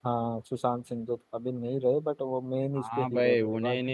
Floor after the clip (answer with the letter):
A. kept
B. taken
B